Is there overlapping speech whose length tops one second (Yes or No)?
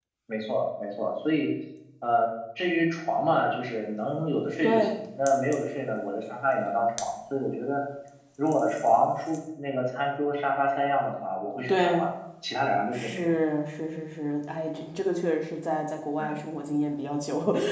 No